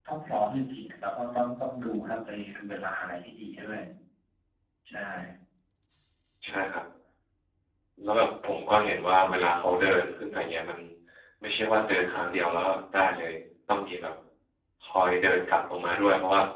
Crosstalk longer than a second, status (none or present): none